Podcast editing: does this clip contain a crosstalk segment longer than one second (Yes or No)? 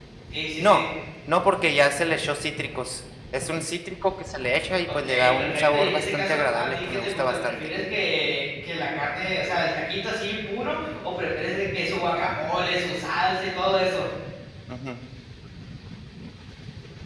Yes